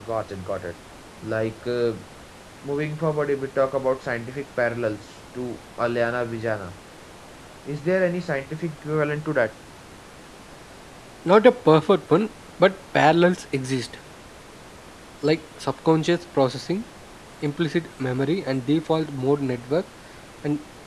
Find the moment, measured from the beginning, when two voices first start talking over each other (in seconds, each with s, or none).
none